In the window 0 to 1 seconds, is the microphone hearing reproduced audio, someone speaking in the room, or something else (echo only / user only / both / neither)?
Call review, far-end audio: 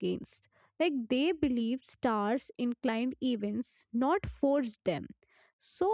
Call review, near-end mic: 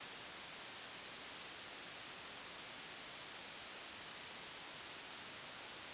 neither